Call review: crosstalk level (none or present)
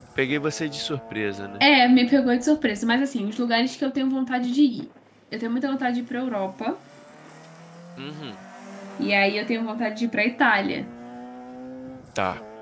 none